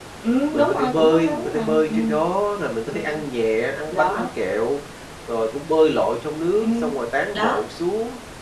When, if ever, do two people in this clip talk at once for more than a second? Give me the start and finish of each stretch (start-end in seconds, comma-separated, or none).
0.5-2.2